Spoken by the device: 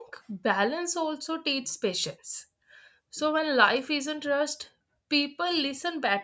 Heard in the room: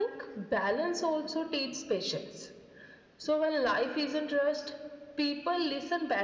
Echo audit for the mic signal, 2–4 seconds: echo only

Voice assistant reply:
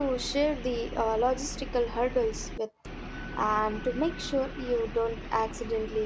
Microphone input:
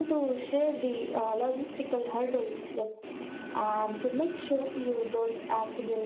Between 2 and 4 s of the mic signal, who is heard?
echo only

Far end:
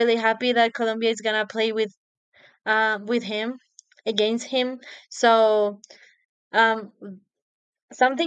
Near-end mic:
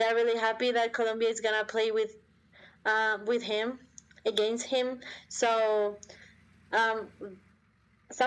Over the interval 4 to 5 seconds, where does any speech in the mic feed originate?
echo only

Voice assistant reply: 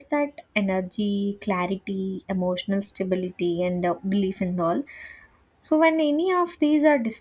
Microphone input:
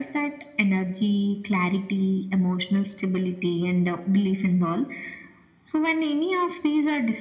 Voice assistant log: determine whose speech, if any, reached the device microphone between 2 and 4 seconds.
echo only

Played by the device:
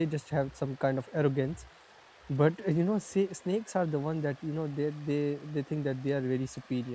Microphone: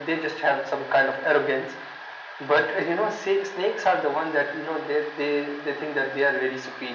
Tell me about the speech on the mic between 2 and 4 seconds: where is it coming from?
echo only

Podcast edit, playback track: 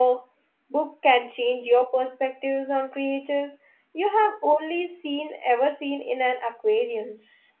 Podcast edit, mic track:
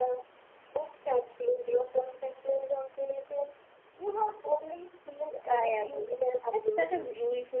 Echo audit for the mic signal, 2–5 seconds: echo only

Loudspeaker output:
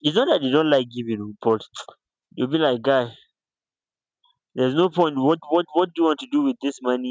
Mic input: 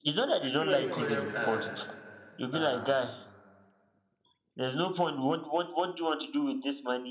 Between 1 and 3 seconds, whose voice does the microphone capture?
both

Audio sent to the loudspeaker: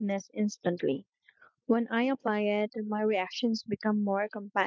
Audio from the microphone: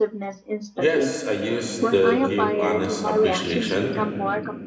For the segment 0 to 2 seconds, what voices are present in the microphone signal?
both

